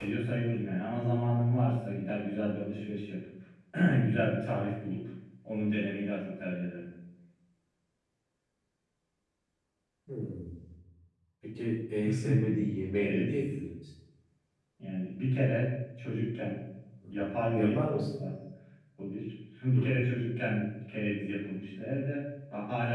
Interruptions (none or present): present